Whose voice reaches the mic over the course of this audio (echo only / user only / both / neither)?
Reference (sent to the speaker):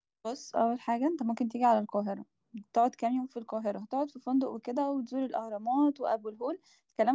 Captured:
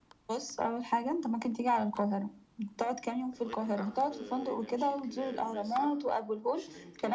both